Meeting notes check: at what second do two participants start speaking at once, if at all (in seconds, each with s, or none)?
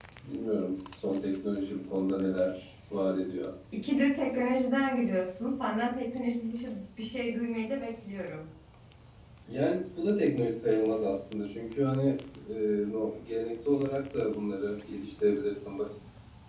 none